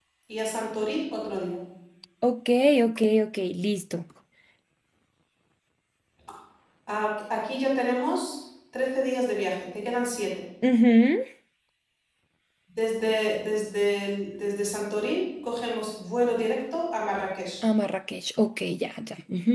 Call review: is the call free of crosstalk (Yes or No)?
Yes